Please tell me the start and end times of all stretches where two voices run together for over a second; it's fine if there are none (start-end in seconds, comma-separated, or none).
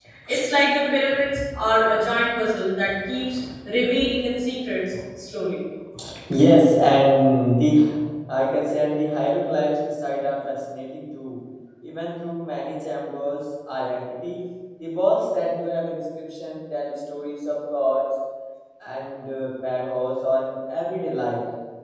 none